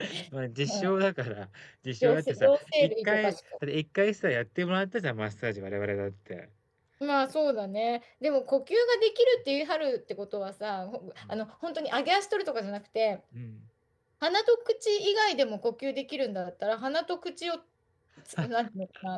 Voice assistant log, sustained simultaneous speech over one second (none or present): present